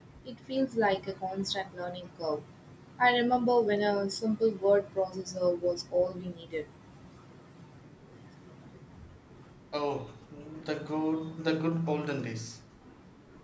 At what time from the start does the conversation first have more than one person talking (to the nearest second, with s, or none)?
none